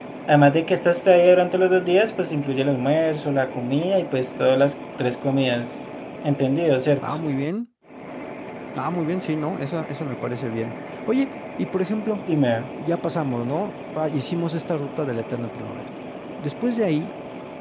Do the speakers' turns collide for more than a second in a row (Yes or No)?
No